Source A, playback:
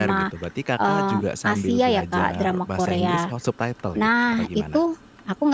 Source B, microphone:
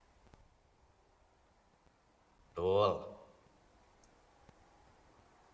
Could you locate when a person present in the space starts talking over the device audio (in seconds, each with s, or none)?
2.5 s